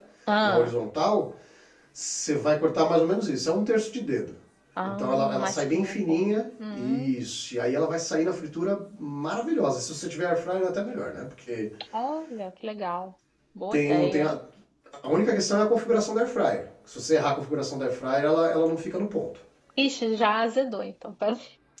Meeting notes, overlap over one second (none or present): present